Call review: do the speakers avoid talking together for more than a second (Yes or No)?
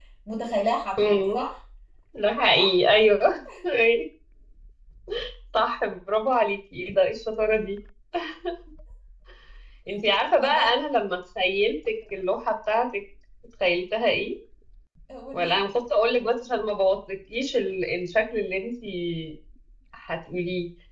Yes